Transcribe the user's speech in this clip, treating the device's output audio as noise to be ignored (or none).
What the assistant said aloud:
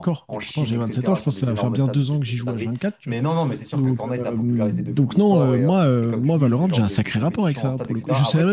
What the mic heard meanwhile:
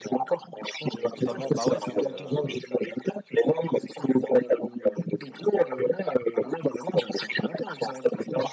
Totalement. Bah ouais, c'est. euh,